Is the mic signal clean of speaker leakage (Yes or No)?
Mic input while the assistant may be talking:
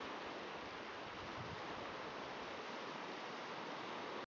Yes